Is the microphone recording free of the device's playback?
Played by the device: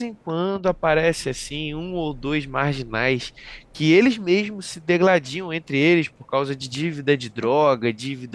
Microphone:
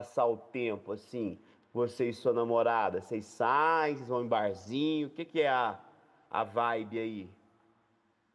Yes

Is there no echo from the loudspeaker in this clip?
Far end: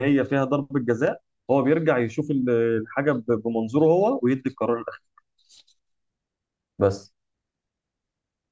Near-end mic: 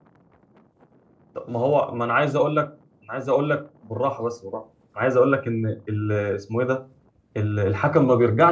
Yes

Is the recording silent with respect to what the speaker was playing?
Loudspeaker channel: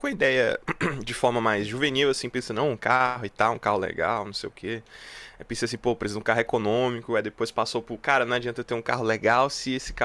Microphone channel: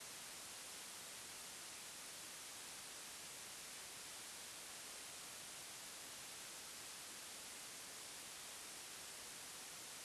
Yes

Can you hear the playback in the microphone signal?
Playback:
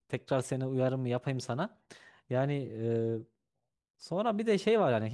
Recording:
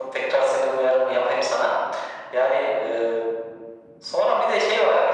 Yes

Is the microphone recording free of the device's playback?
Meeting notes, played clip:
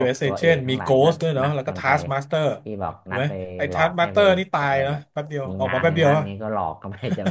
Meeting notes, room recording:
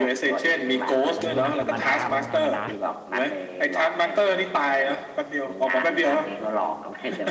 No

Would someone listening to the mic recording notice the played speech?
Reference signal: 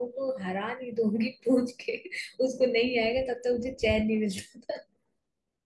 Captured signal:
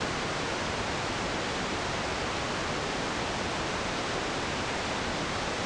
No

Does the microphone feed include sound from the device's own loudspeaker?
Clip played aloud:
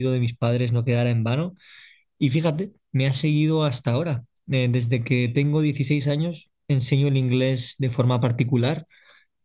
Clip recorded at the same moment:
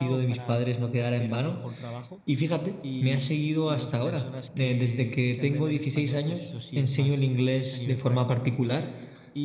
Yes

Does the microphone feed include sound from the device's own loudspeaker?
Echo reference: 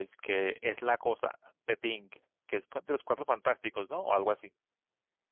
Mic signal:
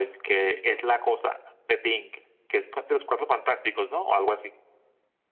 Yes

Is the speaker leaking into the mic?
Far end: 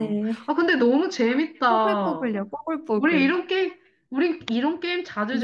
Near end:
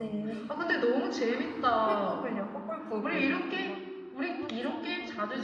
Yes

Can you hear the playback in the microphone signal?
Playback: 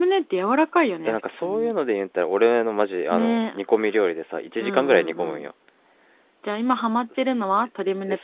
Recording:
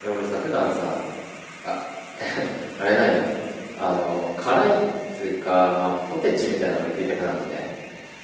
No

